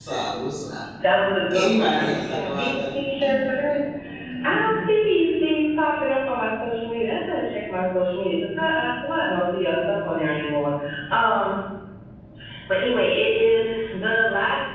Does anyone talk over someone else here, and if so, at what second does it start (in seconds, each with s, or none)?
1.5 s